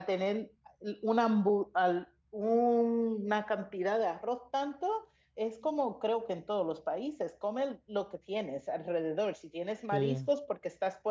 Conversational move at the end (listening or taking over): listening